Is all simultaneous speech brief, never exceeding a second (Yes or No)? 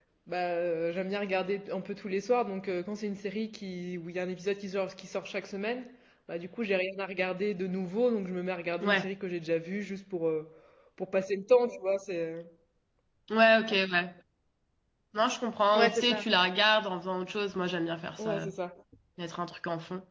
Yes